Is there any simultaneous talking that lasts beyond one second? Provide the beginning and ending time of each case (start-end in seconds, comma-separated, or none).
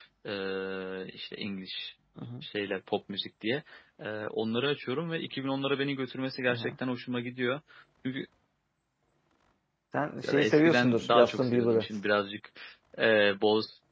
10.2-11.9